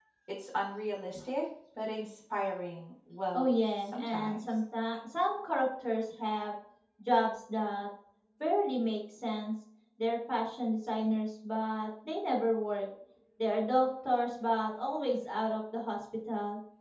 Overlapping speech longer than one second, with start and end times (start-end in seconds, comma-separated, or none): 3.3-4.6